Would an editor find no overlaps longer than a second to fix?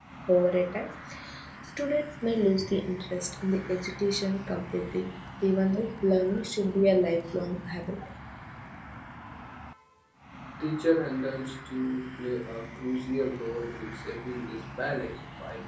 Yes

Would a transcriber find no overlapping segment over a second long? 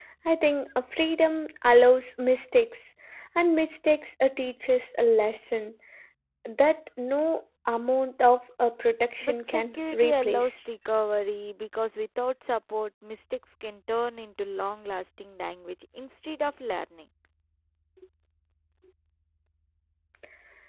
No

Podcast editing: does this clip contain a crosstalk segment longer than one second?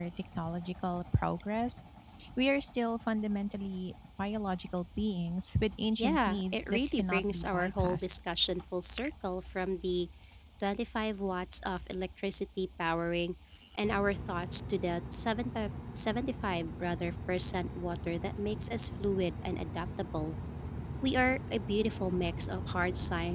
Yes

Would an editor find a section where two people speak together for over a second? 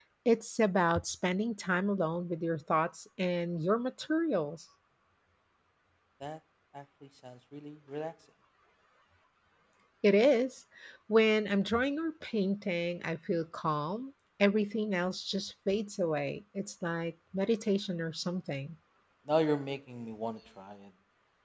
No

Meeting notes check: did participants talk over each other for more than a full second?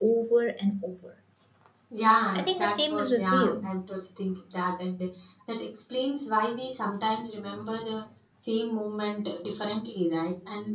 Yes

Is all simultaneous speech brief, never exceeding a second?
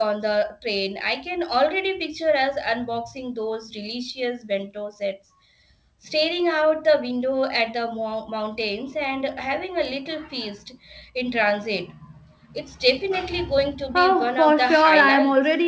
No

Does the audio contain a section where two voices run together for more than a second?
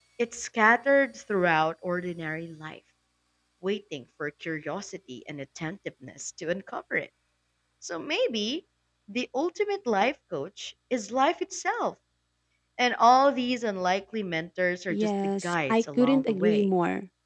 Yes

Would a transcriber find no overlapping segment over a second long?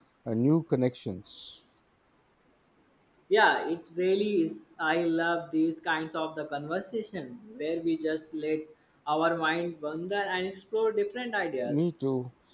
Yes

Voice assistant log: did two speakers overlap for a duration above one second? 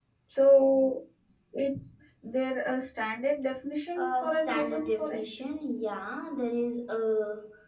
Yes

